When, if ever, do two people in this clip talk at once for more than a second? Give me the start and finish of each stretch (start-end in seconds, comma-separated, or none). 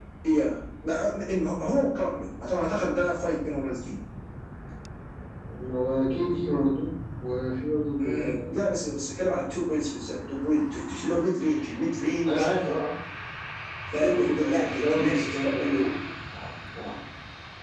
13.9-15.8